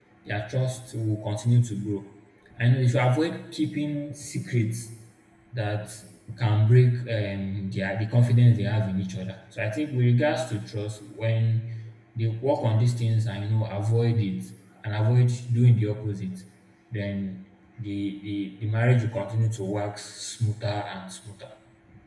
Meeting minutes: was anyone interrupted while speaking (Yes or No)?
No